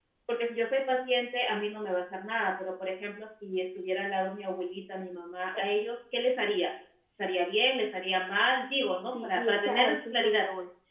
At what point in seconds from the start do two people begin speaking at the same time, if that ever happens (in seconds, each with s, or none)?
9.1 s